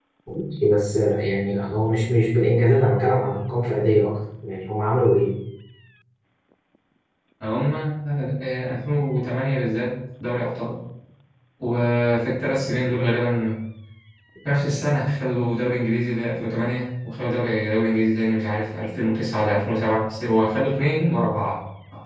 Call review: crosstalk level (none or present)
none